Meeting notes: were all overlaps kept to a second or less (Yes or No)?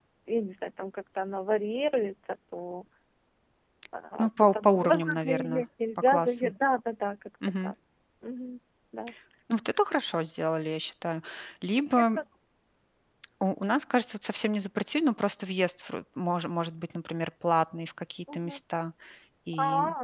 No